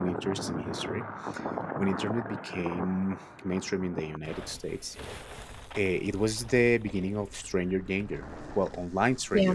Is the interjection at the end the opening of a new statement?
No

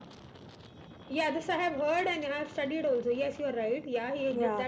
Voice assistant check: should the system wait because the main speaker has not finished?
No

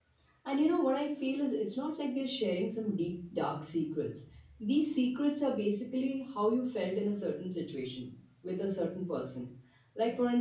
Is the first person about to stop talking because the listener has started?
No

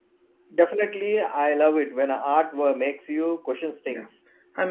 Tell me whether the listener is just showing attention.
No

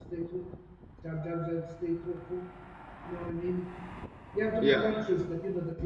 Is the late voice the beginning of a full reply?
No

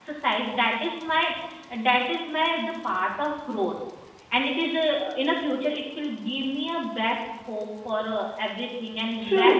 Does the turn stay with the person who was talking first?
No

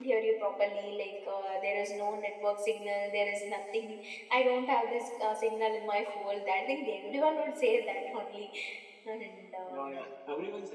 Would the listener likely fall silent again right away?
No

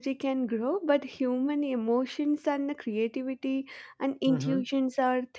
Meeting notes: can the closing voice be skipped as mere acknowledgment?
Yes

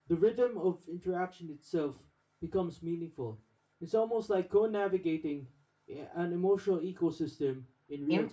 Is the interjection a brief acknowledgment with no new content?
No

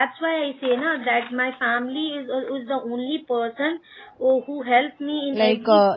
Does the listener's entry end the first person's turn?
Yes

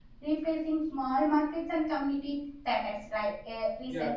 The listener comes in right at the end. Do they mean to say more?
No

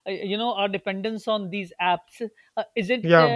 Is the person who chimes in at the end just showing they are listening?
Yes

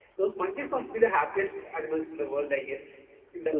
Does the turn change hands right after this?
Yes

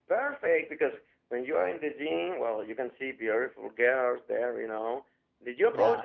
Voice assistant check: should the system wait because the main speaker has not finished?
Yes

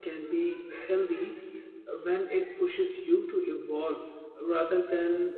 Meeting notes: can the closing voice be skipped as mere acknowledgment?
No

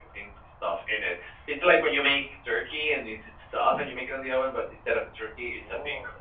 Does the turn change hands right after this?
Yes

